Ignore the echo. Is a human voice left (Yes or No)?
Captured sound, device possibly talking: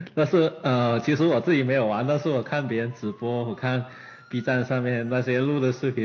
No